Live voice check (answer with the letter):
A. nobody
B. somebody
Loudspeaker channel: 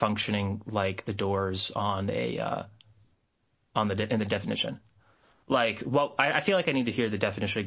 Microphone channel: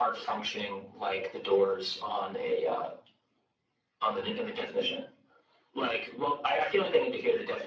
A